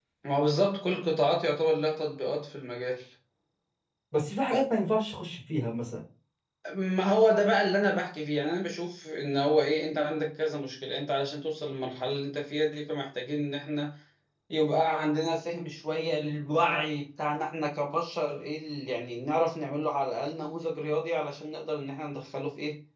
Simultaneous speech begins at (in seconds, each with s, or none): none